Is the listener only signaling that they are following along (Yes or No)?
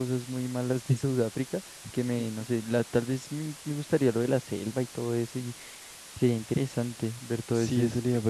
No